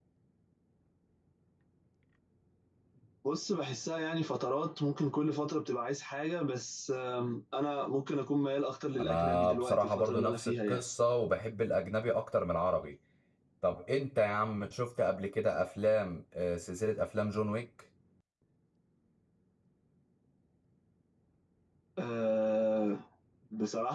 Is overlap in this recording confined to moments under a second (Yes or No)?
No